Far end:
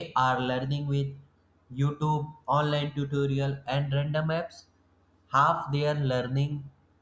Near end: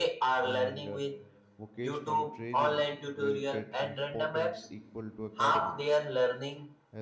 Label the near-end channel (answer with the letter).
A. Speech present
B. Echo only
A